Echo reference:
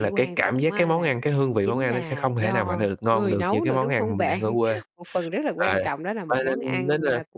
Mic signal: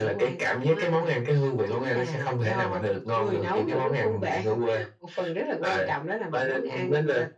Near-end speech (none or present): none